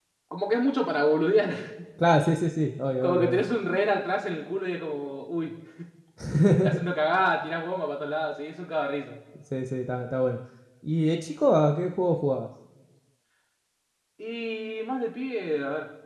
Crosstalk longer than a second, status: none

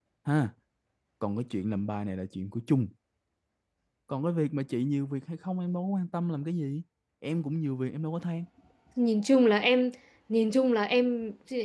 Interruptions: none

